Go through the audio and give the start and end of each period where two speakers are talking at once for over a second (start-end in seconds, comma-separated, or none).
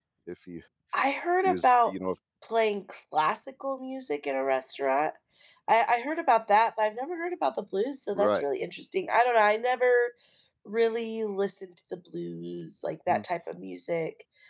none